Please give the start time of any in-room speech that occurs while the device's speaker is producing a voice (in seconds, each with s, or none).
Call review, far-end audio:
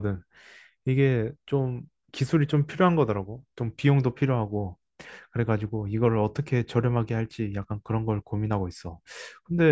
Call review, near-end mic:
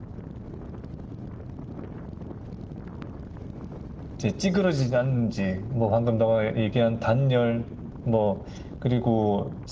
4.2 s